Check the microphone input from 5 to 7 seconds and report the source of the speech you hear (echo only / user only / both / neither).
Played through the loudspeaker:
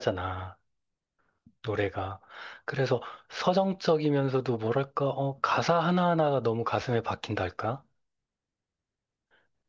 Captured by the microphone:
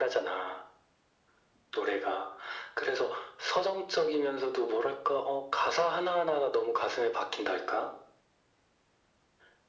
echo only